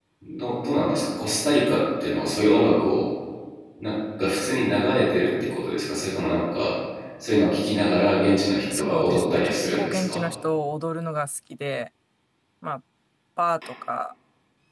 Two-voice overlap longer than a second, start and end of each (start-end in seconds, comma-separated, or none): 8.7-10.2